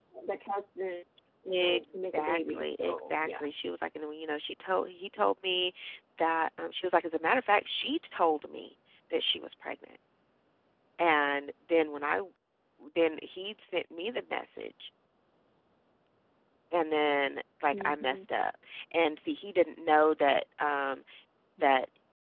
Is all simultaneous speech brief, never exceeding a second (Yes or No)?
No